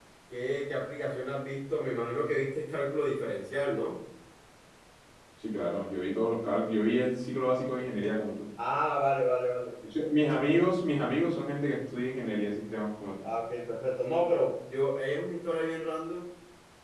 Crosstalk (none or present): none